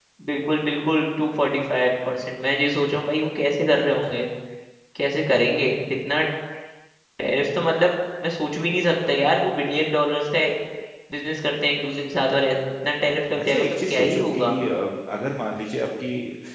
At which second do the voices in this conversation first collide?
13.3 s

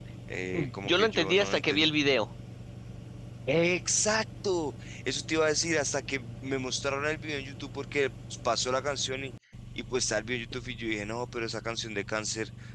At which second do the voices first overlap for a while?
0.5 s

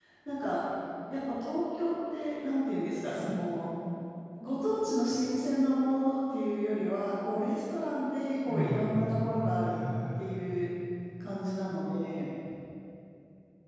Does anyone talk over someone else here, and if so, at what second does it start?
8.4 s

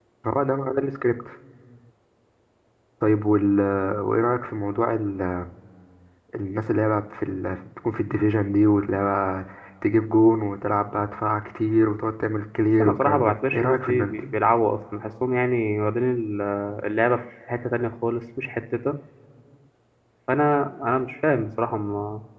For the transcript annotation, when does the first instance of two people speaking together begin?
12.8 s

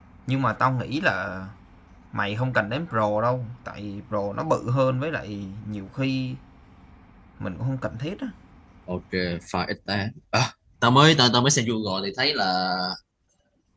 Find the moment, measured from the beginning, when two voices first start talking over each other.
none

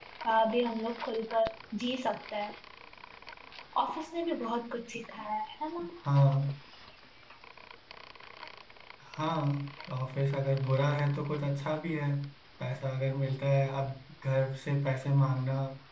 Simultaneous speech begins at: none

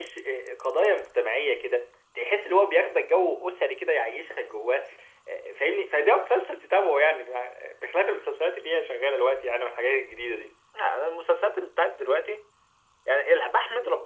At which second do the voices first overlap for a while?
none

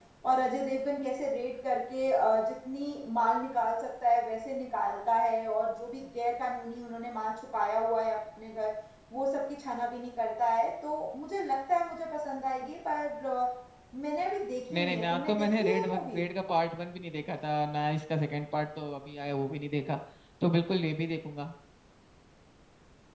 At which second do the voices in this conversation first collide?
14.7 s

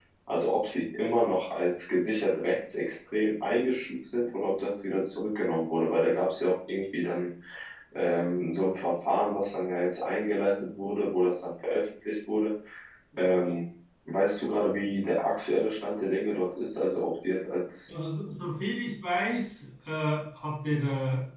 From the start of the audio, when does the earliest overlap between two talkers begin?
none

